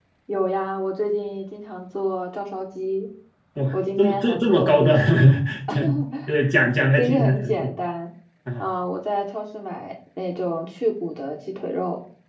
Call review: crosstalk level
present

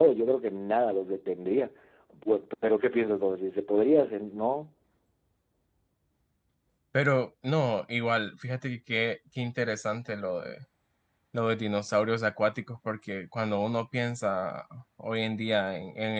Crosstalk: none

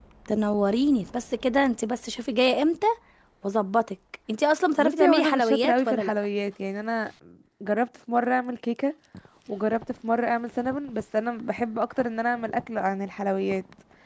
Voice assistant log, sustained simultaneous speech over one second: present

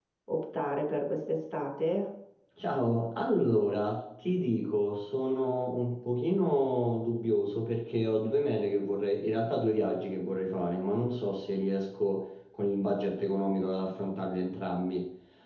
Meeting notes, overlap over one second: none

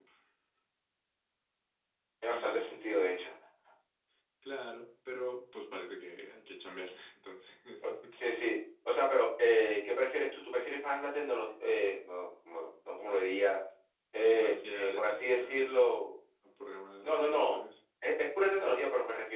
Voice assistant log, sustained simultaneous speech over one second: present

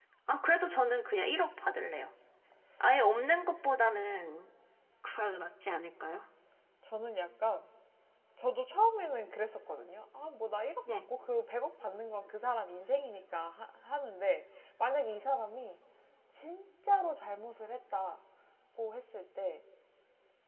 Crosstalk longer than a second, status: none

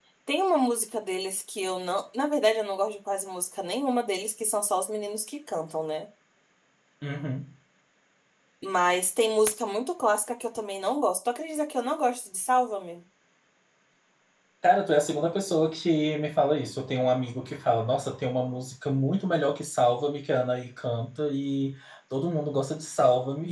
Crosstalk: none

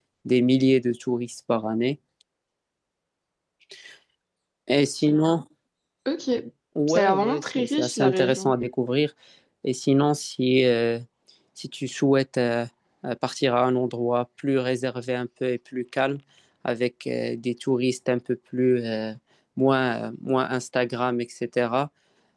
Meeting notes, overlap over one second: present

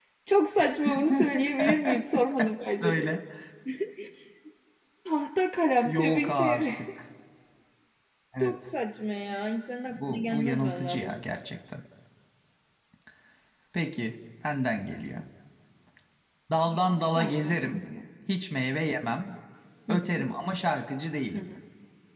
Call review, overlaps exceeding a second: present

